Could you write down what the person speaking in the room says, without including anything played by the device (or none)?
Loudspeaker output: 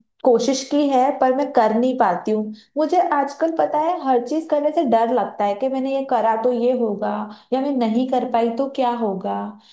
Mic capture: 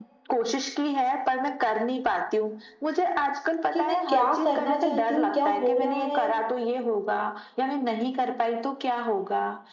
कि मैं क्या करना चाहती हूँ क्या हो रहा है